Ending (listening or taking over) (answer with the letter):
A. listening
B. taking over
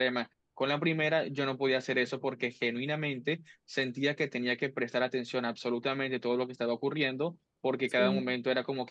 A